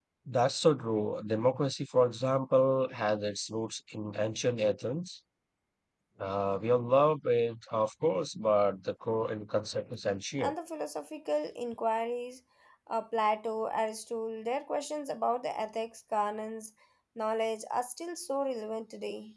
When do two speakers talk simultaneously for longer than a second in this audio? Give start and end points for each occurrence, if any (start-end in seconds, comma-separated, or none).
none